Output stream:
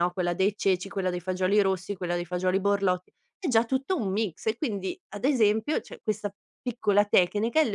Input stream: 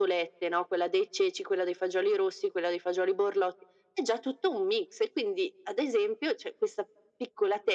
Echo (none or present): present